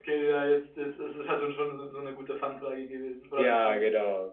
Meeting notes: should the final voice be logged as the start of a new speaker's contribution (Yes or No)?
Yes